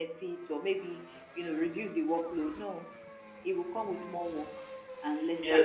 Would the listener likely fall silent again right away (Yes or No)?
No